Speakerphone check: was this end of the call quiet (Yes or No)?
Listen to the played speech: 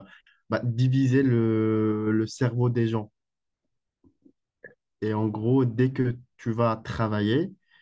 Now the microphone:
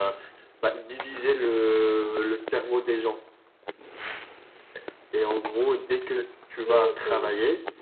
No